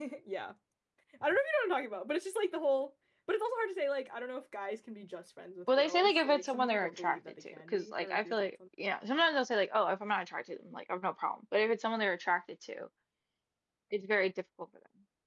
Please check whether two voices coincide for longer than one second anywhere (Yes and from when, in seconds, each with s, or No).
Yes, from 5.7 s